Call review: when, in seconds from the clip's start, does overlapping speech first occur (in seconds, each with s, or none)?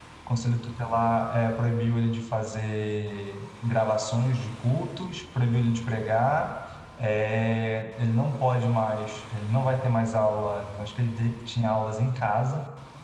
none